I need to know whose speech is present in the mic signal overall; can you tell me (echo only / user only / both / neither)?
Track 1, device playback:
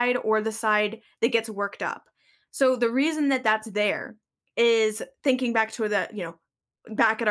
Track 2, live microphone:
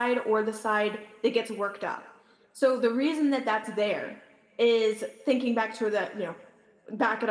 echo only